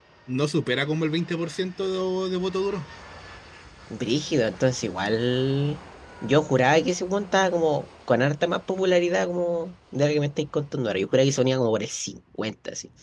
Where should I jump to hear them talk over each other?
none

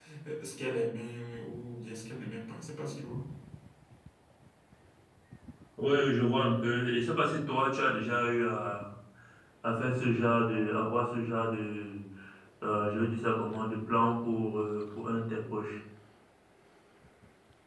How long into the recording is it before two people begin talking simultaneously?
none

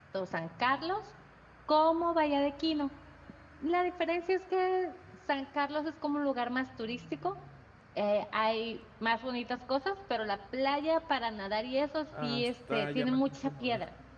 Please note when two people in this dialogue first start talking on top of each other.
12 s

